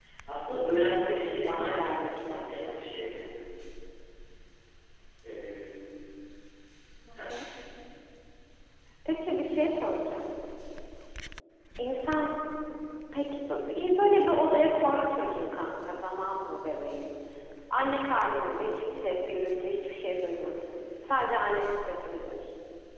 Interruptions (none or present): present